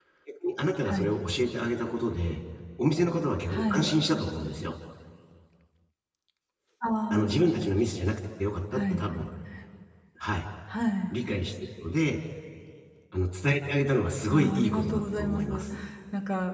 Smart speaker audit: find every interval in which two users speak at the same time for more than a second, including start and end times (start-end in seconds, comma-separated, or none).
14.3-15.7